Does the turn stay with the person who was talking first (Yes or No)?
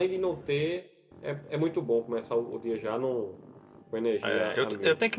No